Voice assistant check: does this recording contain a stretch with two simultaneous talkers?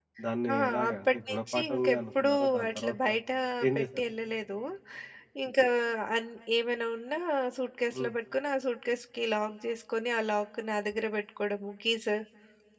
Yes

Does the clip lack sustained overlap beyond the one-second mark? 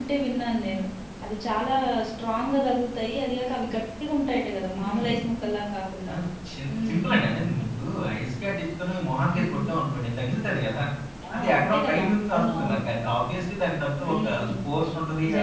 No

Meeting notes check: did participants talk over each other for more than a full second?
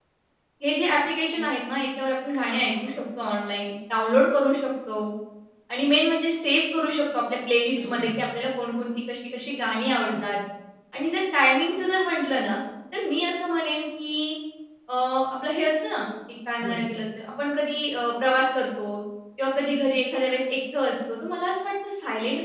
No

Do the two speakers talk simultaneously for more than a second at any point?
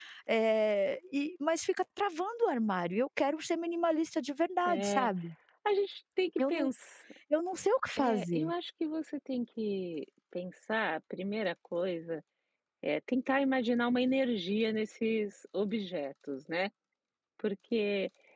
No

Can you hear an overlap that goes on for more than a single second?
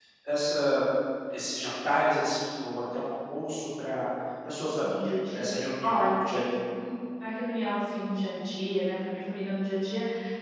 No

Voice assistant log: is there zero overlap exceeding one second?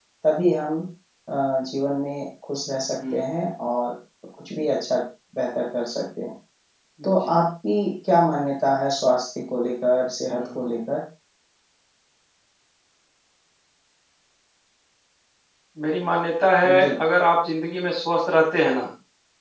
Yes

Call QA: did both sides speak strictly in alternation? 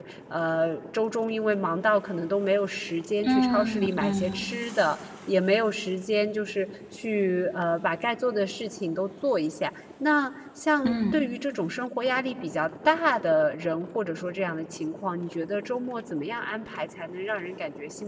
No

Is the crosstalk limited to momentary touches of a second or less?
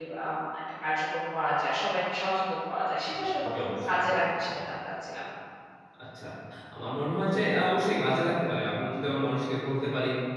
Yes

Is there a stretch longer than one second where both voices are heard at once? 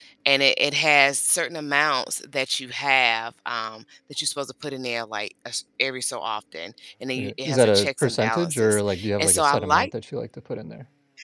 Yes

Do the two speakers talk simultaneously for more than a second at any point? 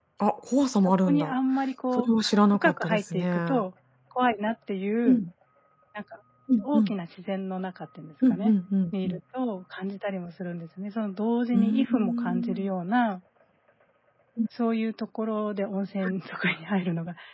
Yes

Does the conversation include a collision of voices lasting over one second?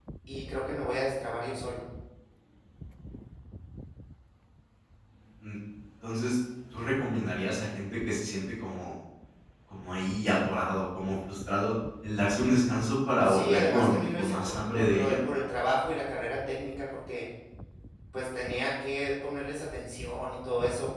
Yes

